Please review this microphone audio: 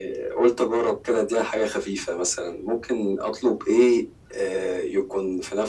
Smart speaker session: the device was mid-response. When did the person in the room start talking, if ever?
none

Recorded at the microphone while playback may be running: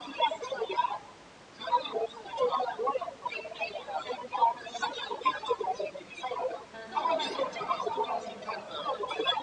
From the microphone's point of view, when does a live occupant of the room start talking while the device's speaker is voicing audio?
7 s

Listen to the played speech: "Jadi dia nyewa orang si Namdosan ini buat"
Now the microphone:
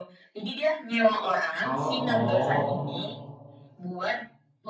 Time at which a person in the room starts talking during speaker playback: 2 s

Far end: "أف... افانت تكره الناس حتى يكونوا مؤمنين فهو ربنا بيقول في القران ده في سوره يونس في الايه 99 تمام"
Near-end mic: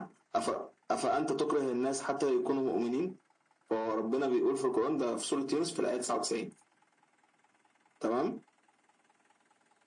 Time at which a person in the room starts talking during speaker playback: none

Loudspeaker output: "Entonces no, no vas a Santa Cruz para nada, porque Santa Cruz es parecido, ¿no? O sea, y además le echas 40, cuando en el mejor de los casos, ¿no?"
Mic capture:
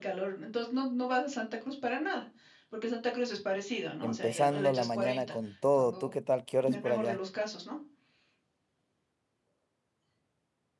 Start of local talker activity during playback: 4 s

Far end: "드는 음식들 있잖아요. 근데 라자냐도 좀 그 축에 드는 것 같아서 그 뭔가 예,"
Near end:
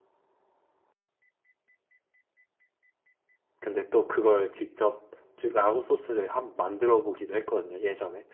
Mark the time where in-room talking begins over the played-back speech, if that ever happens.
4 s

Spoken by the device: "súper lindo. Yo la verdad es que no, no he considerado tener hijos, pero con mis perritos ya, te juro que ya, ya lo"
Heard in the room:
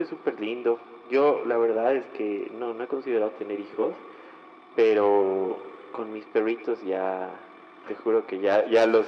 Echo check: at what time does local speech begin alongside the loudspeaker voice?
none

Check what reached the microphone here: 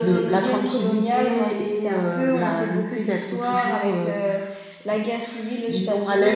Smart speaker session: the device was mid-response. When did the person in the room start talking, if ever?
none

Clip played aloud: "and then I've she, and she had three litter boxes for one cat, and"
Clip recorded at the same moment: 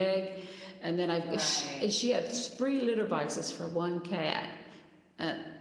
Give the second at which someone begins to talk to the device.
1 s

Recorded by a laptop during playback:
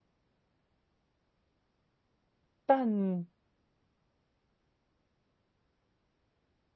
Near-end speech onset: 3 s

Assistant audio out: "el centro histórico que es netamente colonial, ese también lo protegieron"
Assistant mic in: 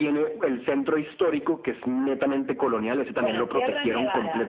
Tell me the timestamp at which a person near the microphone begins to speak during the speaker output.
3 s

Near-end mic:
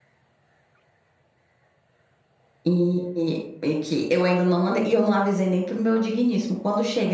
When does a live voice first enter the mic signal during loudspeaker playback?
3 s

